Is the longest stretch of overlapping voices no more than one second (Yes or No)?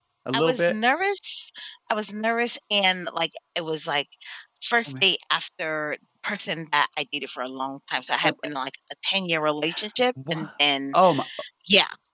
Yes